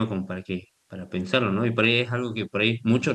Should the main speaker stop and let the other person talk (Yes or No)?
No